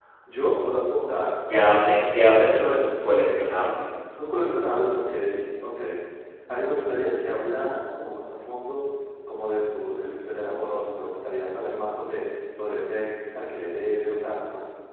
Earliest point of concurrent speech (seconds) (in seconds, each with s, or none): none